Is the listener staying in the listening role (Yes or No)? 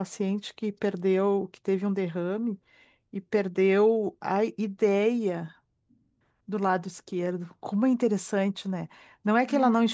Yes